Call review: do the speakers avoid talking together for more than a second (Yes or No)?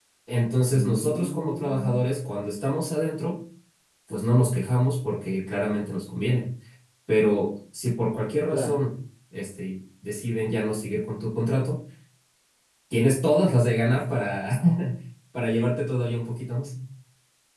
No